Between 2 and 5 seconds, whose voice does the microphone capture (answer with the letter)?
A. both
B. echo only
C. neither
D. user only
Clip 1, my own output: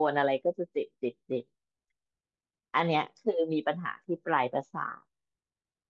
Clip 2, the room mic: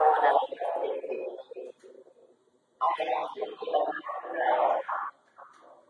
B